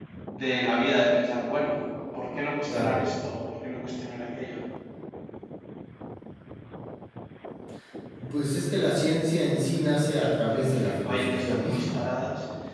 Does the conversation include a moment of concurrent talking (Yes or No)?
Yes